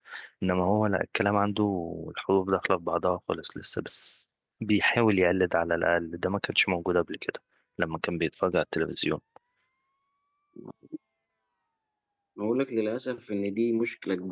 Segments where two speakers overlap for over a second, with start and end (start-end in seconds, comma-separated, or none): none